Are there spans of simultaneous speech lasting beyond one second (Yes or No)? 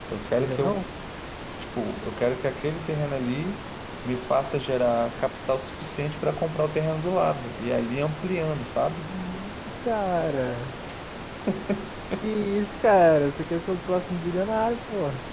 No